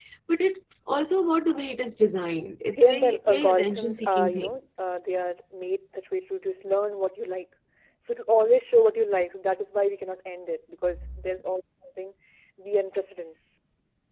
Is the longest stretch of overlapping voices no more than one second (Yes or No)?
No